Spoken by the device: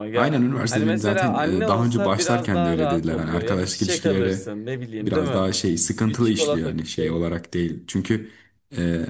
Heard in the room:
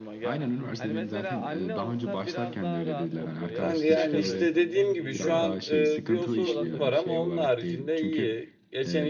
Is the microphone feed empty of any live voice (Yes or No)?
No